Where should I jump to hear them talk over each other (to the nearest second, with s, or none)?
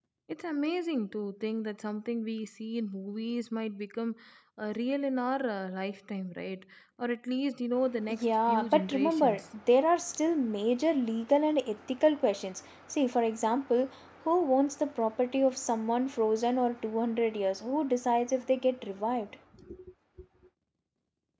8 s